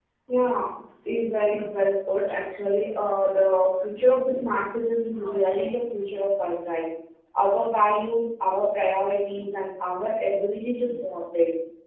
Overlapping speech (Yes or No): No